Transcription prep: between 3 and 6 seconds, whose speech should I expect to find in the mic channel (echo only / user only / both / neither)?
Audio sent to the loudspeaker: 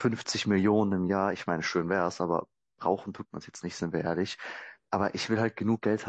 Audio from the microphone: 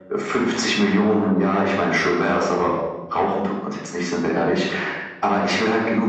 echo only